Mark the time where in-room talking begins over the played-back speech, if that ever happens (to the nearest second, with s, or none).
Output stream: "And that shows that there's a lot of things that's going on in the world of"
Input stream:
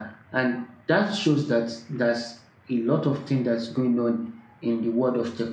none